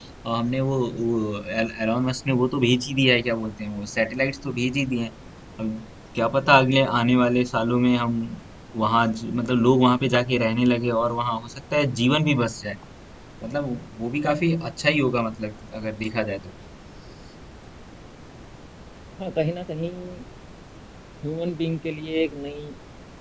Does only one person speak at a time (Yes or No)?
Yes